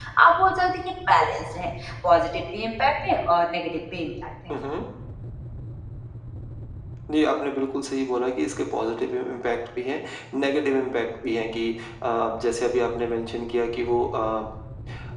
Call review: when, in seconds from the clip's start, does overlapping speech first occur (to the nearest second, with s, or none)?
none